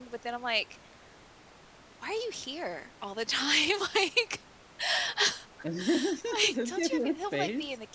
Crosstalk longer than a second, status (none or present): present